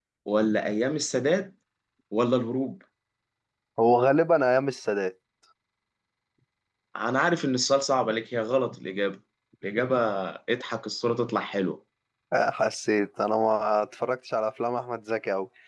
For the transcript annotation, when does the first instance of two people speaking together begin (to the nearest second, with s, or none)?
none